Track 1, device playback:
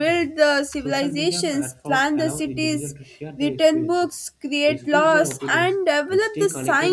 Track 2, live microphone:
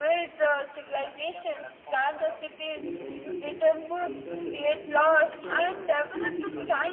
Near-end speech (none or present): present